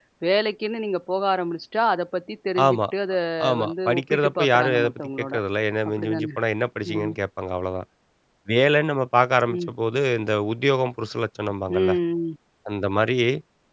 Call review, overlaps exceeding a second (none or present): present